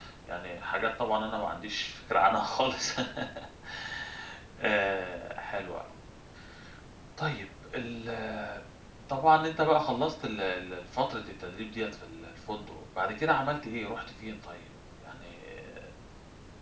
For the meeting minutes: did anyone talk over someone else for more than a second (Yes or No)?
No